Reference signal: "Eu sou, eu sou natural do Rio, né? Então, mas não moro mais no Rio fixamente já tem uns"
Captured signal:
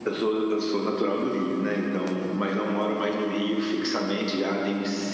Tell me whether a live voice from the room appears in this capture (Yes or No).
No